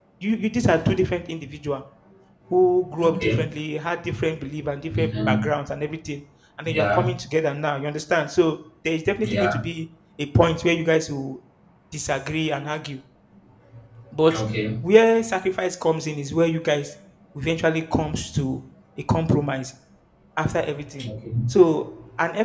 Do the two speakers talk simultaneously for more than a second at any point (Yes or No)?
No